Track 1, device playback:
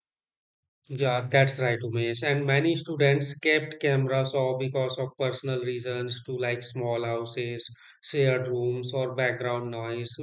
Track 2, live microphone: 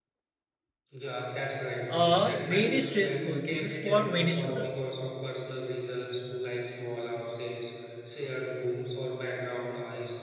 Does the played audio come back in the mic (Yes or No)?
Yes